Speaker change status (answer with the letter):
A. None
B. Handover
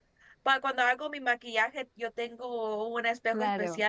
A